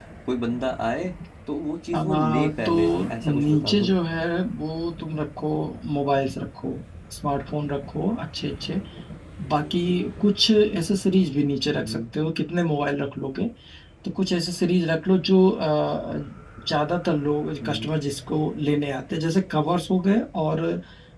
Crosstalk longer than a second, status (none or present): present